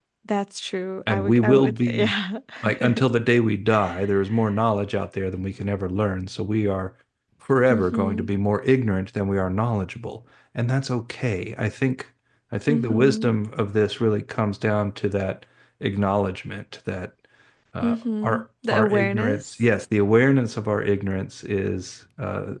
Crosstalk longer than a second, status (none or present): present